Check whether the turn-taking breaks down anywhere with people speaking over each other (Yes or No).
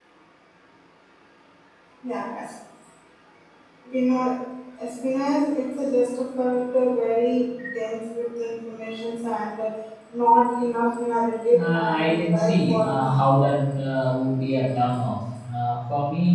Yes